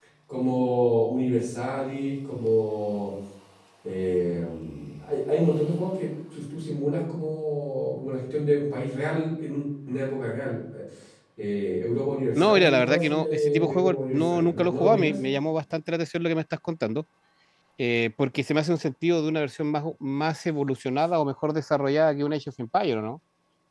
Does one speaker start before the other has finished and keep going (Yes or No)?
Yes